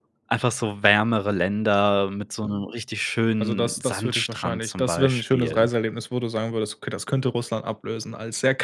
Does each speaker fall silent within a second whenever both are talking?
No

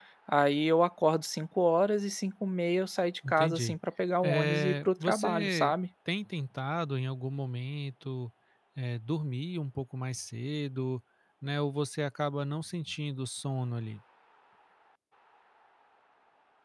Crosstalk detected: Yes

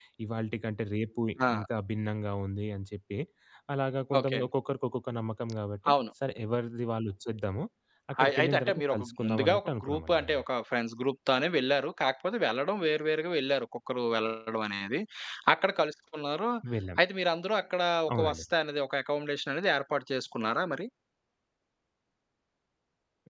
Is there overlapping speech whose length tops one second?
Yes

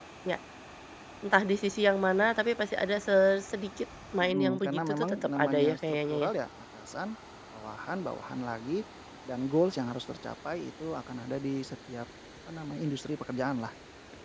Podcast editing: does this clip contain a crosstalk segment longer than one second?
Yes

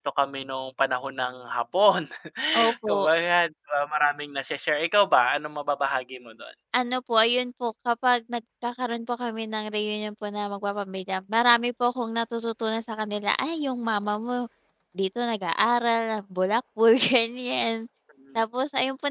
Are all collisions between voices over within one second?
Yes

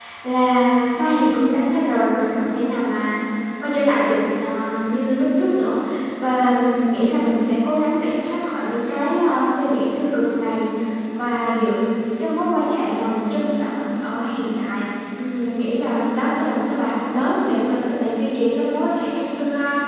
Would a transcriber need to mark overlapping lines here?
No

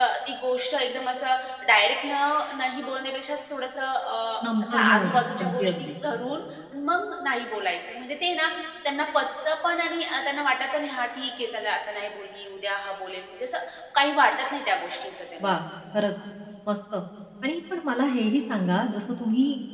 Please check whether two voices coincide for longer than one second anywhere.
Yes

